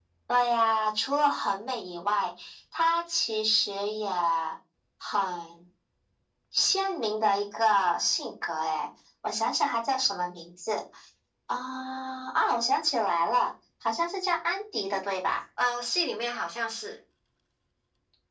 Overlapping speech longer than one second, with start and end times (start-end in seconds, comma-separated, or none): none